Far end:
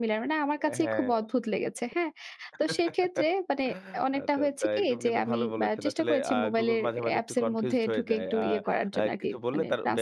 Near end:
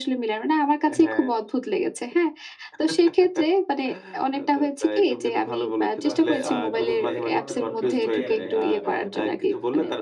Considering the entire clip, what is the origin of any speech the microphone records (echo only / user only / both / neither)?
both